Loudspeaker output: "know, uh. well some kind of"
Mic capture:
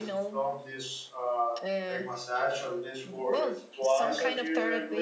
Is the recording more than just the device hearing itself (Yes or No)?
Yes